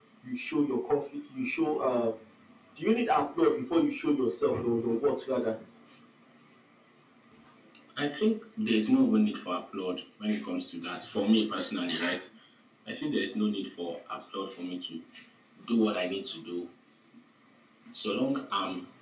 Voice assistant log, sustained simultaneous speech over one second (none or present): none